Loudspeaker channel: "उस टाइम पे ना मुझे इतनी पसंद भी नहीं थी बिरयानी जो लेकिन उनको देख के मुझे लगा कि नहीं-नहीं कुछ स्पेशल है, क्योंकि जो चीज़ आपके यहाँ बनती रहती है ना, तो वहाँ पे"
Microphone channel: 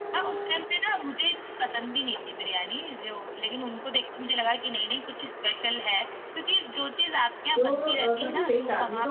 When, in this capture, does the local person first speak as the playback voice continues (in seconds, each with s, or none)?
7.5 s